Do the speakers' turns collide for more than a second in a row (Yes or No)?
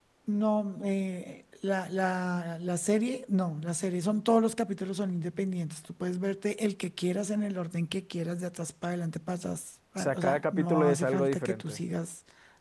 Yes